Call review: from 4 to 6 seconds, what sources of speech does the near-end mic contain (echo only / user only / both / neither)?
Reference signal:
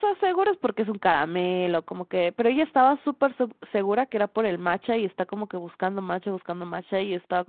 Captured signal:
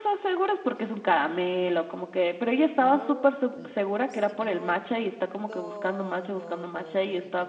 both